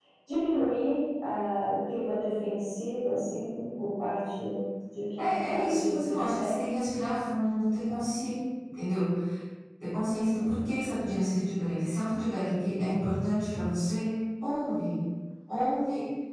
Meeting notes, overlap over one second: present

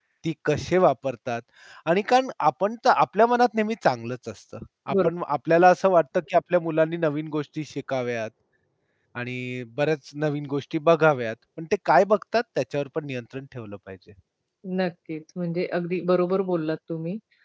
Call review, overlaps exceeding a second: none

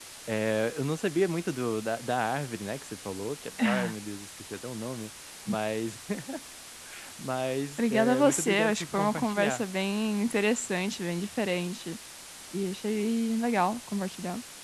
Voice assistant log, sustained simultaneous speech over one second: present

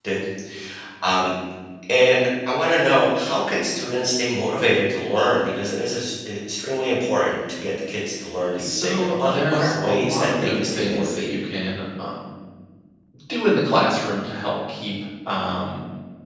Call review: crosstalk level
present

